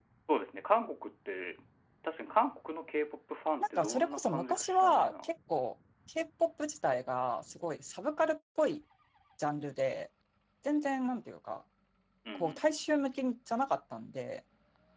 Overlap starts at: 4 s

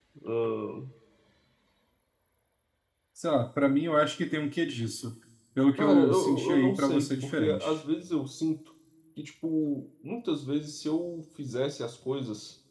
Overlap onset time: 6 s

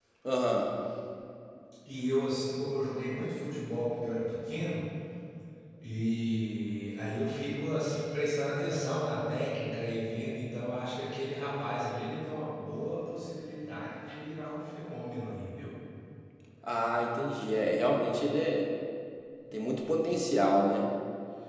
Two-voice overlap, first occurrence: none

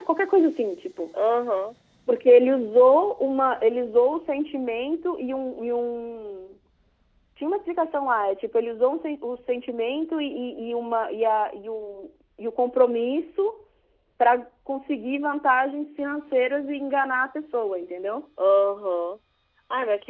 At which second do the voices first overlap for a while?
none

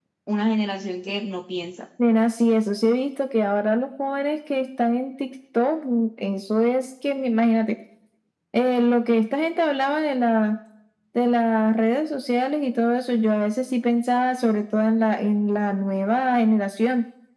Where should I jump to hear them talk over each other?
none

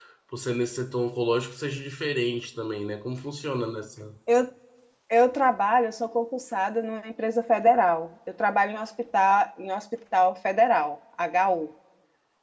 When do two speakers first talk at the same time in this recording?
none

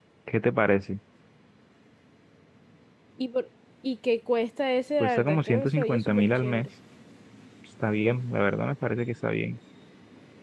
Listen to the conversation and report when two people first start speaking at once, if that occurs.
5 s

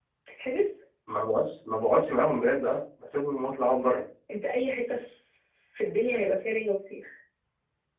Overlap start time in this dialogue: none

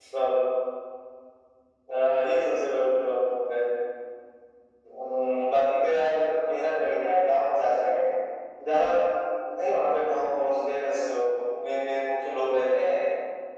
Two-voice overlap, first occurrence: none

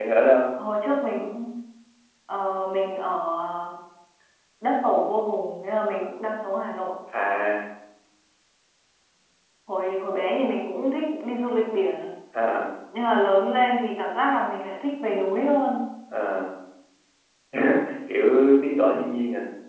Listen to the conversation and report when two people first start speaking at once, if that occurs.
none

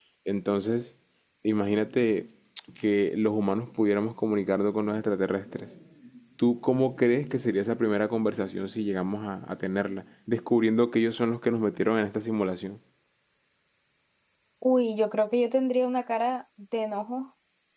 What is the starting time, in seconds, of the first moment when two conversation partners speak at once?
none

